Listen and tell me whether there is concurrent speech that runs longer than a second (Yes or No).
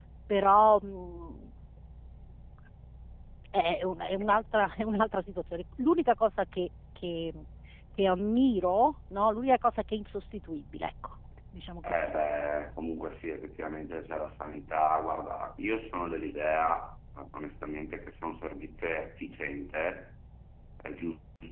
No